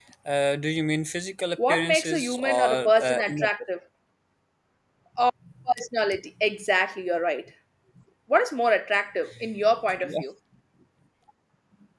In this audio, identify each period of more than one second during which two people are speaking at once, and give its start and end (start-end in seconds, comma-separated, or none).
1.7-3.5